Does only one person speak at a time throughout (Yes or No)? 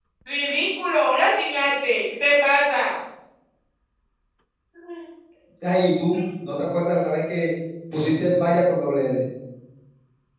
Yes